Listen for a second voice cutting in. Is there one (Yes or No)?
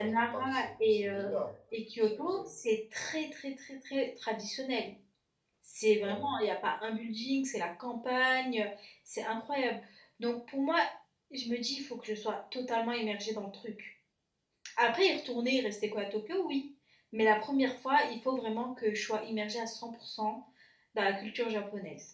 Yes